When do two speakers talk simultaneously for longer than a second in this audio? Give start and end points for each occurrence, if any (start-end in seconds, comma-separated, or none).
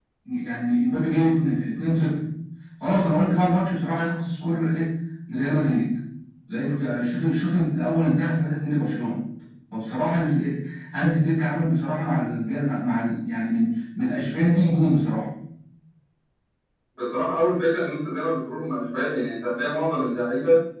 none